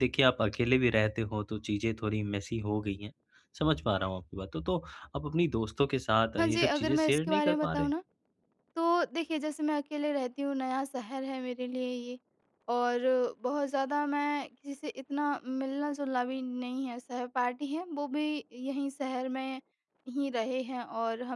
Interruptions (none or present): present